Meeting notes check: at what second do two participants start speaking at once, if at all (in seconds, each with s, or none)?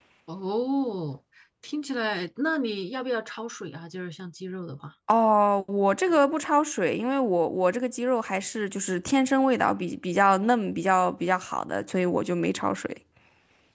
none